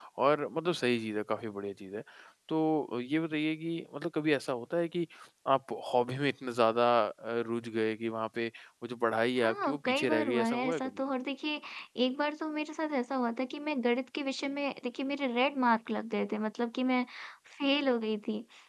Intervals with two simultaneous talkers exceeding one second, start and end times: 9.4-11.0

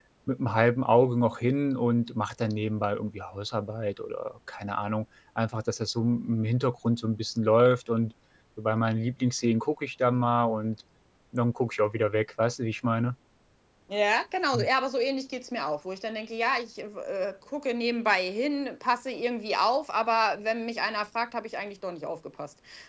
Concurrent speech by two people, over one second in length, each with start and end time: none

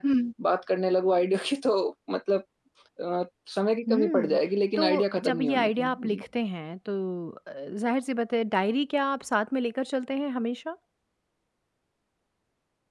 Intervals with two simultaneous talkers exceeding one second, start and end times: 4.8-6.2

